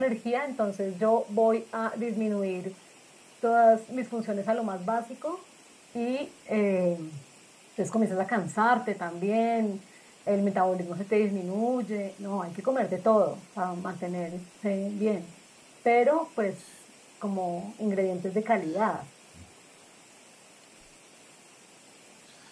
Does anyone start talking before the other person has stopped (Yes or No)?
No